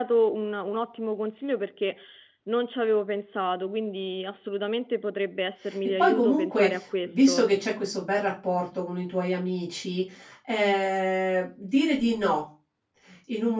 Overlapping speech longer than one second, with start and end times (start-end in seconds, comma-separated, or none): 6.0-7.5